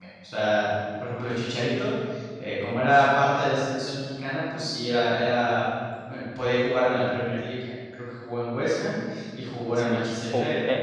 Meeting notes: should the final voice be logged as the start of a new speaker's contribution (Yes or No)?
Yes